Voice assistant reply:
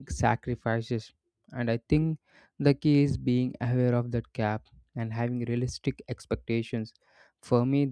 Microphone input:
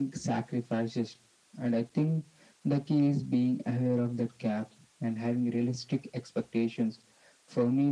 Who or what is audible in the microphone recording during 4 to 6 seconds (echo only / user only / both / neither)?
echo only